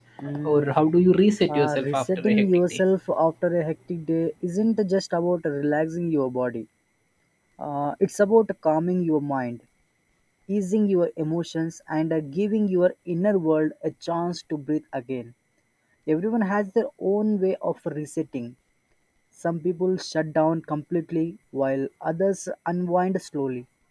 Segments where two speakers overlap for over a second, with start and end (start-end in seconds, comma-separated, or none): 1.5-2.8